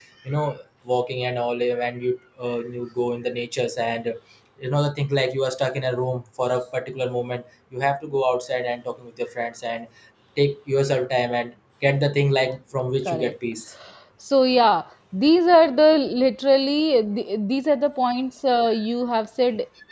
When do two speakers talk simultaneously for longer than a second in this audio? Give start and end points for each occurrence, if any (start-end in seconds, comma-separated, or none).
none